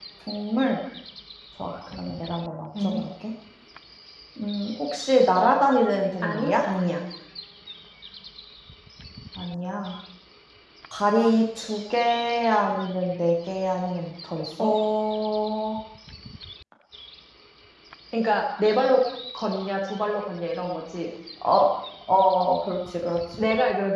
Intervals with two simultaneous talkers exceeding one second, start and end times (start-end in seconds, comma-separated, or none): none